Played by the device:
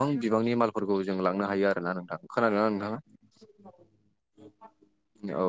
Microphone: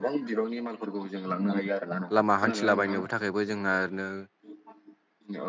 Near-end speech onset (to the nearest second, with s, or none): 2 s